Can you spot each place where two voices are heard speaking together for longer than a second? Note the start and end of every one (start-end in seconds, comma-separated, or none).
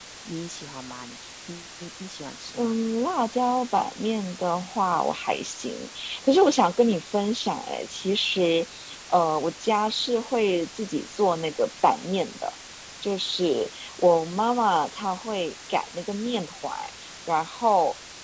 none